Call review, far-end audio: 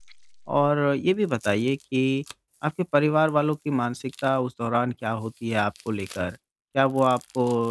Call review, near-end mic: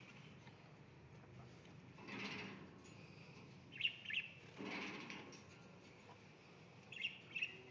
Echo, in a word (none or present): none